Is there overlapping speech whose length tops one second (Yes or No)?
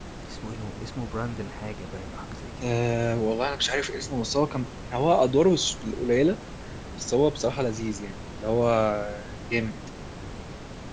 No